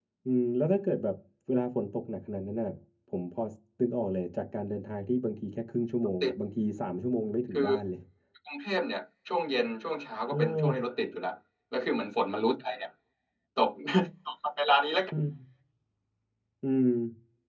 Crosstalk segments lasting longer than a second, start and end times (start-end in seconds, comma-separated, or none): none